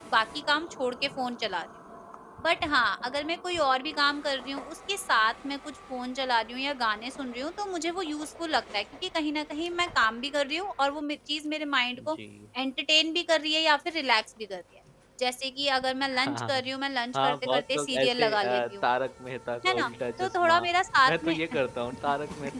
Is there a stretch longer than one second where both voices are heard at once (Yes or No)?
Yes